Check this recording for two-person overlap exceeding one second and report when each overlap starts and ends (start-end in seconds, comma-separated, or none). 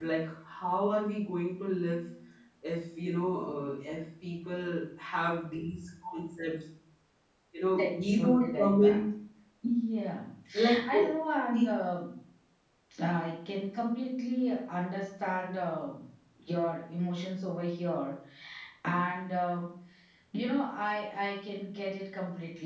7.8-9.0